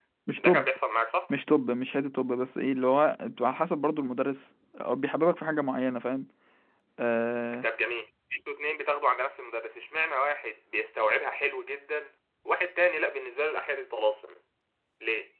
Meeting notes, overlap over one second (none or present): none